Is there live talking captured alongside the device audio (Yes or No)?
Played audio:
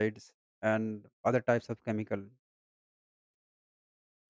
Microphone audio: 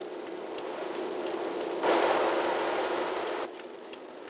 No